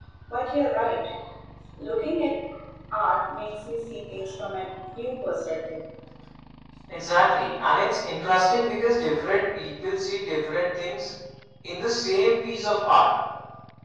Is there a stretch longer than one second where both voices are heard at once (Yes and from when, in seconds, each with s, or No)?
No